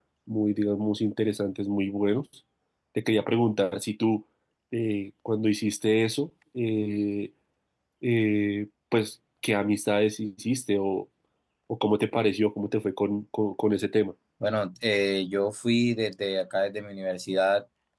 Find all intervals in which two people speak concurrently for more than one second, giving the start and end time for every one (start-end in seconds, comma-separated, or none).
none